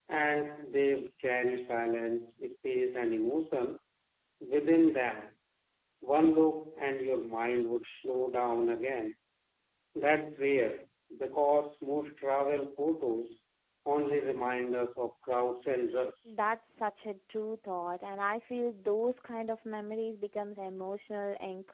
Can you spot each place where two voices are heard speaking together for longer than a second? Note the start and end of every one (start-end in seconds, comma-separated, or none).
none